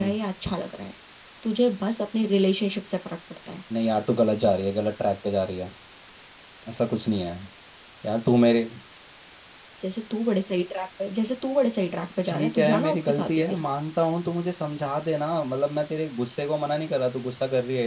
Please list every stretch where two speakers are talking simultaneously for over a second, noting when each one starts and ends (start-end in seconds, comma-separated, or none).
12.3-13.6